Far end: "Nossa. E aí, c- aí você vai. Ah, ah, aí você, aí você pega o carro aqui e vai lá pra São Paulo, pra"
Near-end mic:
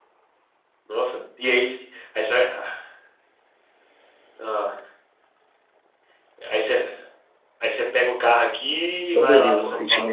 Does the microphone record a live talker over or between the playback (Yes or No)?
Yes